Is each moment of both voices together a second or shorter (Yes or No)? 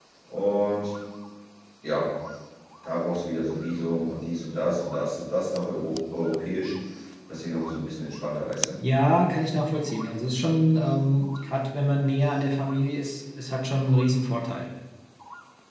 Yes